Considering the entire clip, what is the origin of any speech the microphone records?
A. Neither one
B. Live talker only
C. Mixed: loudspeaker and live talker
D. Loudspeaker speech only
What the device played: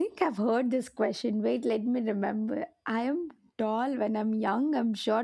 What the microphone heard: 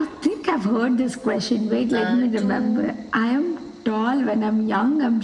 C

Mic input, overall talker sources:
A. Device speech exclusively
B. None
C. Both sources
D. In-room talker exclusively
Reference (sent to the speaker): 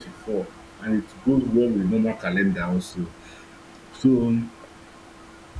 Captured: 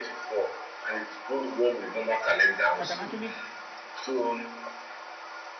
C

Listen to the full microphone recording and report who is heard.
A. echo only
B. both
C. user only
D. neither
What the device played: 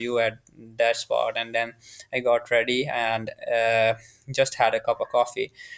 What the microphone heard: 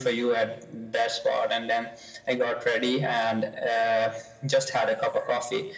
A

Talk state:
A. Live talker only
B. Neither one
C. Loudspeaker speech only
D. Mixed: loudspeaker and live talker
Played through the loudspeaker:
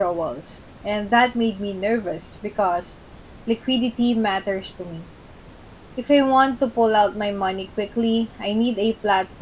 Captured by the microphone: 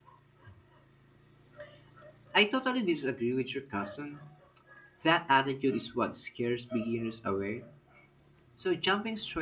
A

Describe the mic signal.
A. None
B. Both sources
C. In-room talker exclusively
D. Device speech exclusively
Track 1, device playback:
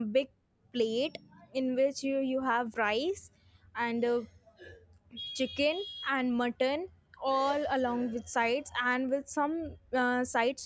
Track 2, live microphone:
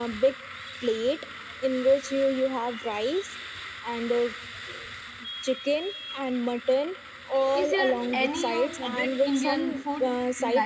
B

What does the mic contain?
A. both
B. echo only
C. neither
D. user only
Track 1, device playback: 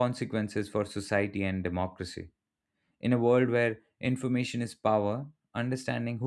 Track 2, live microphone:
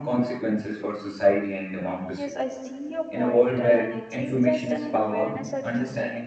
A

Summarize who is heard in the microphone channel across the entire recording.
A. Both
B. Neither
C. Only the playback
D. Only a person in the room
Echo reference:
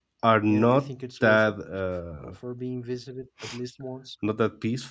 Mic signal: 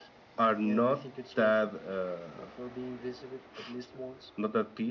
C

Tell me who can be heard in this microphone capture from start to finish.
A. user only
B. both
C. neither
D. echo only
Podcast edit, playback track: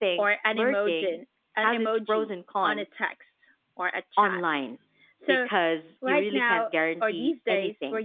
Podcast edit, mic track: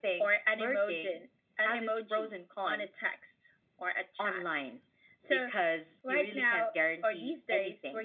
D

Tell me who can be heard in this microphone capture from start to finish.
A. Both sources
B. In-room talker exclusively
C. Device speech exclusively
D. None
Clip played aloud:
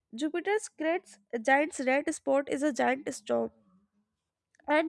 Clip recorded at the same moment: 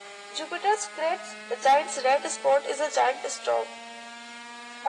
C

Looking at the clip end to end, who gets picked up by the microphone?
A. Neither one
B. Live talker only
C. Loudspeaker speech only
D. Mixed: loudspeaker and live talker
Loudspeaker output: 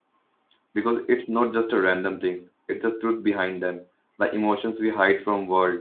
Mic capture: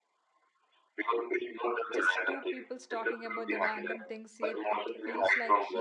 D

